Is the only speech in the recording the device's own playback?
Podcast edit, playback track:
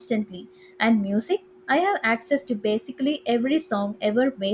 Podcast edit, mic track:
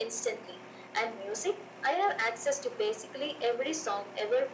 Yes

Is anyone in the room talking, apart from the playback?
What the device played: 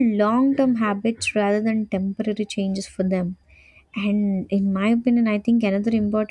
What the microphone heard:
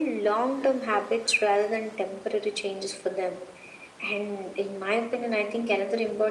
No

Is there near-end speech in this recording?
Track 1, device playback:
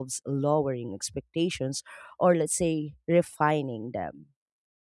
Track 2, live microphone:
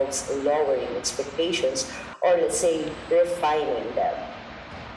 No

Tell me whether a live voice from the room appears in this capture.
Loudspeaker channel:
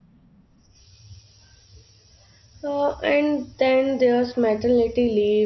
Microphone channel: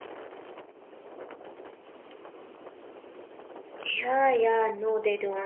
Yes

